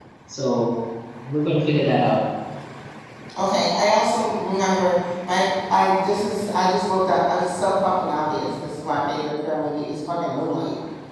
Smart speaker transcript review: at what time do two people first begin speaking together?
none

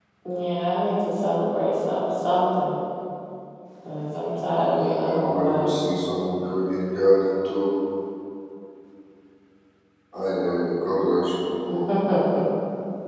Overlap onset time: 4.5 s

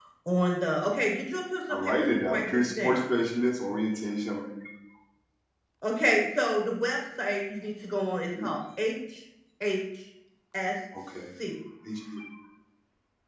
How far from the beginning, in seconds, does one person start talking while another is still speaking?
1.7 s

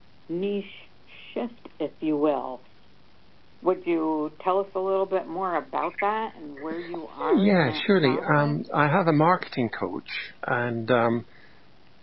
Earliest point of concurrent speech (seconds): 7.2 s

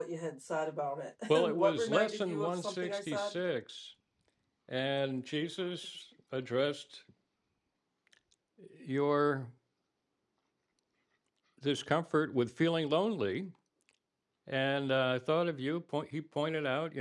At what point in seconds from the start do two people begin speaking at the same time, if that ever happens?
1.5 s

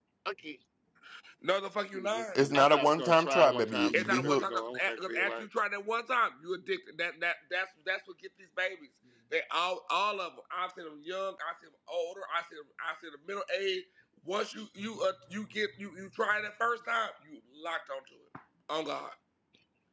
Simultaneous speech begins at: 2.2 s

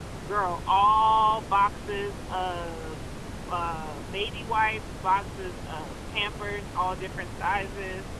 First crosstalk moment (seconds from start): none

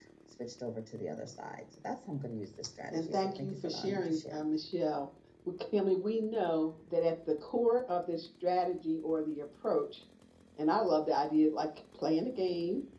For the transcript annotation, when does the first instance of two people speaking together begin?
2.9 s

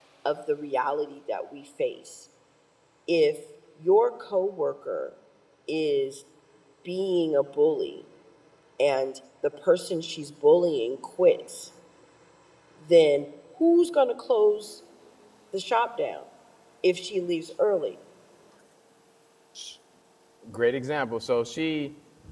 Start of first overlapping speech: none

